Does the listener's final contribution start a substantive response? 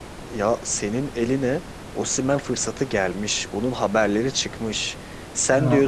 No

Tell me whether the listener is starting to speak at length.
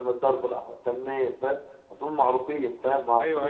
Yes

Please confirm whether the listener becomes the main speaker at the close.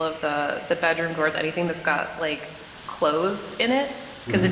No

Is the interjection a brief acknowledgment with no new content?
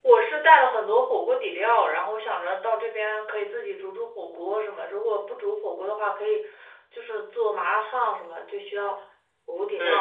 No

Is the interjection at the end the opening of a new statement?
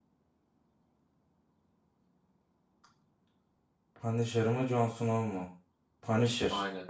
No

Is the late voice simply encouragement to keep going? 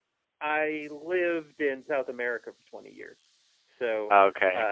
Yes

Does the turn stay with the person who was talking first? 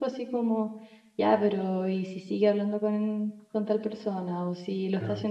Yes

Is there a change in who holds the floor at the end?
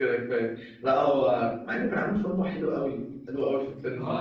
Yes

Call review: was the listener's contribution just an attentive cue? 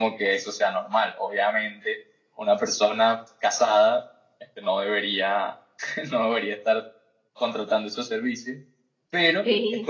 Yes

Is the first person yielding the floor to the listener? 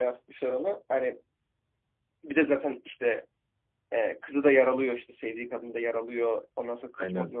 No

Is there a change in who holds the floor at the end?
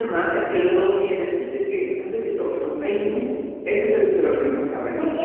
Yes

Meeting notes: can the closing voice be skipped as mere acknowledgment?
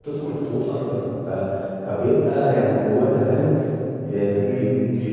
No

